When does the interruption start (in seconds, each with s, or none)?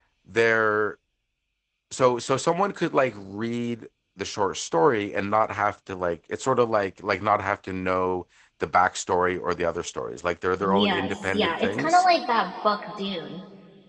10.6 s